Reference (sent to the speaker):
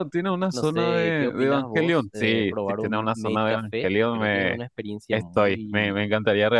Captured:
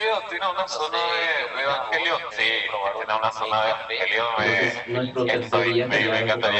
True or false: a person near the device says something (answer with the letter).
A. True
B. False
A